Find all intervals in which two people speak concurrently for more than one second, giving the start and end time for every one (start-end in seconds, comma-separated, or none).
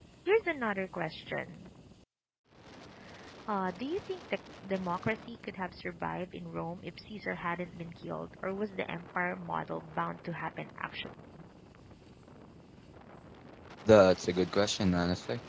none